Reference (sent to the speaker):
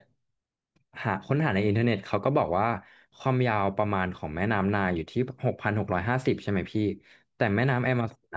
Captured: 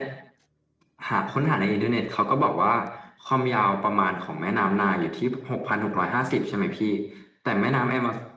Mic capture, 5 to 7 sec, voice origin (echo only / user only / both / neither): echo only